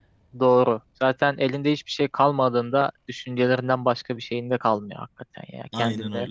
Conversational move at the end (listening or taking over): listening